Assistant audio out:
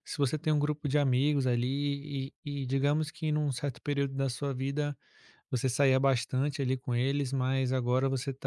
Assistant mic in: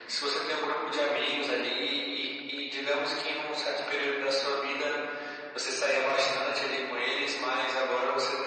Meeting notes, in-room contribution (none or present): none